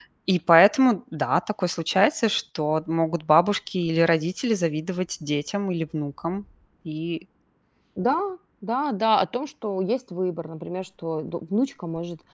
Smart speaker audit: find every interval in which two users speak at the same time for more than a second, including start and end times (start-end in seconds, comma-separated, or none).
none